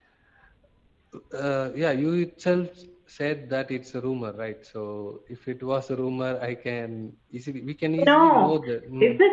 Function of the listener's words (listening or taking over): taking over